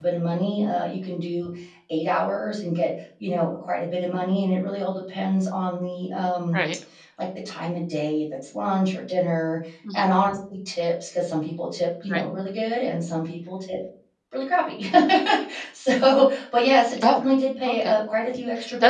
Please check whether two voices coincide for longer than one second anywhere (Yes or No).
No